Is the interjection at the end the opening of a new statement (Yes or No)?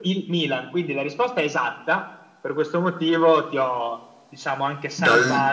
No